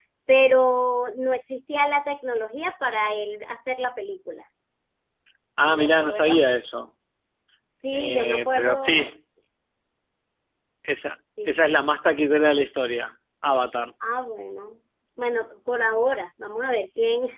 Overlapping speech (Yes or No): Yes